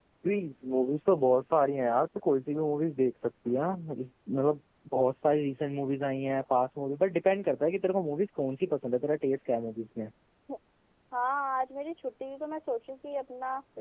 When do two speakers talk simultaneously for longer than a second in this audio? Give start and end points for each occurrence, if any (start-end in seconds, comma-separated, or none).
none